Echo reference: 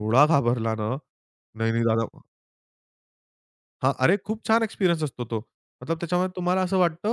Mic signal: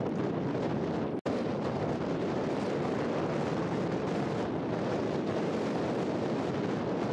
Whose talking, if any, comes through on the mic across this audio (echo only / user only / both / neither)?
neither